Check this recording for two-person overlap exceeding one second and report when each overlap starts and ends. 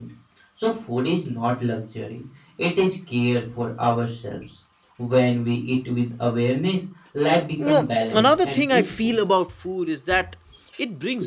7.6-9.1

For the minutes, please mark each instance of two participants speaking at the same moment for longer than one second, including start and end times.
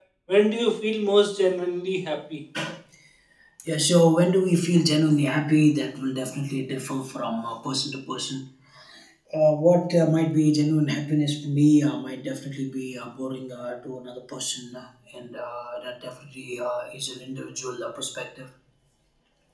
none

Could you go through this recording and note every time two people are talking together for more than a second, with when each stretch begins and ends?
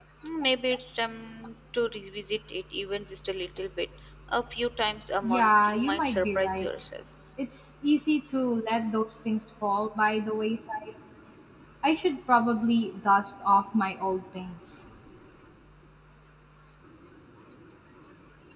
5.2-6.7

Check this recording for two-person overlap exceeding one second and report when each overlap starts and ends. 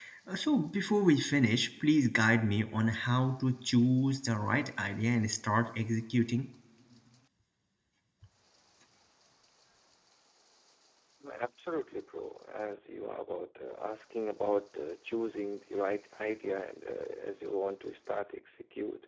none

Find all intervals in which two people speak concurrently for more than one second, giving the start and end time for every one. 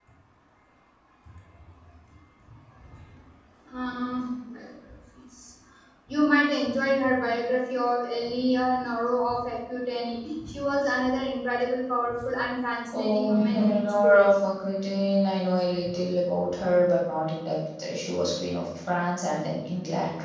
12.9-14.3

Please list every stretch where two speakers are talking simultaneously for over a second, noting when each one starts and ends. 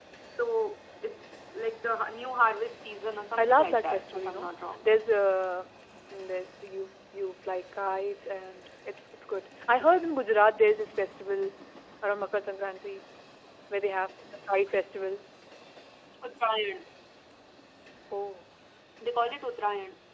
3.4-4.8

